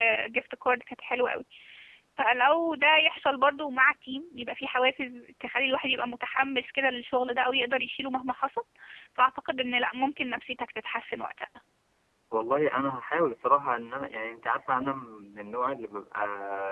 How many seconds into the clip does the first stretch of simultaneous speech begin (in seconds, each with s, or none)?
none